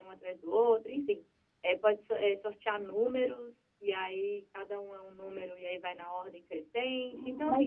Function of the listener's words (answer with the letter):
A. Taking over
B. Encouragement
A